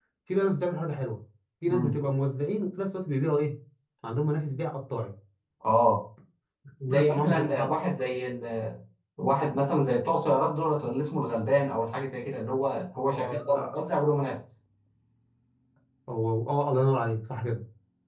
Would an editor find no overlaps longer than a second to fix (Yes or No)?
No